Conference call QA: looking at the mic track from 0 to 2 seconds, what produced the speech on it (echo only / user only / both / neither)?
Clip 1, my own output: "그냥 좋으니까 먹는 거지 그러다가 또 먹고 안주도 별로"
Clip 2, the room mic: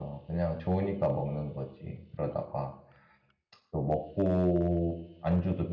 echo only